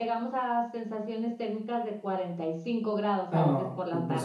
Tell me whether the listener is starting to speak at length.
Yes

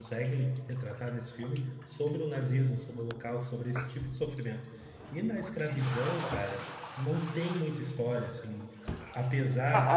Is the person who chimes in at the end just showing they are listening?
No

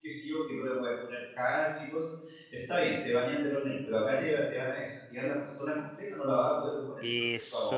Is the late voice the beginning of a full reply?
Yes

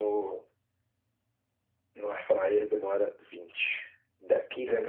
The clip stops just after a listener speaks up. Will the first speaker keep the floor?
No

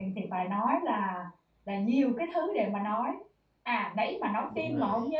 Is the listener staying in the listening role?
Yes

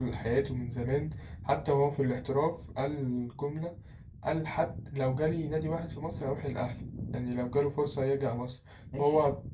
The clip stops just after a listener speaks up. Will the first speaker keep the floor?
Yes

